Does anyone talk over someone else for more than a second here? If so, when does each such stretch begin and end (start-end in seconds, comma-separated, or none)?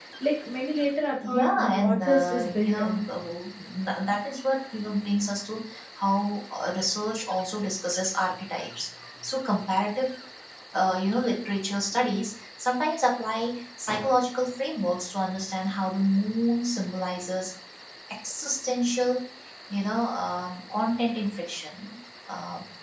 1.2-3.0